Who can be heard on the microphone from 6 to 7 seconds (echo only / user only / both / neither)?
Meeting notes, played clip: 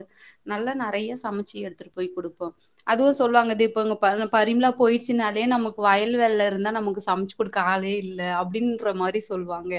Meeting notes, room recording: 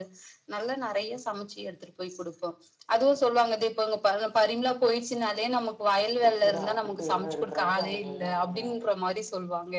both